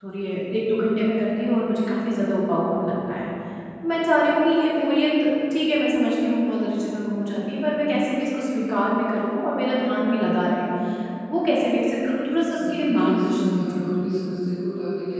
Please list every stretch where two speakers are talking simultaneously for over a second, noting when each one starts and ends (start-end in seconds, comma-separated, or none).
12.7-14.0